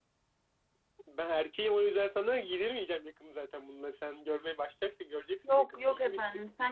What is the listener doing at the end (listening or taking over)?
taking over